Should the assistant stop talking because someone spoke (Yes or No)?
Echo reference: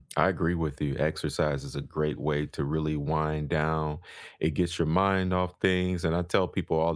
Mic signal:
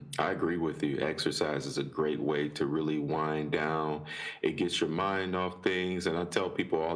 No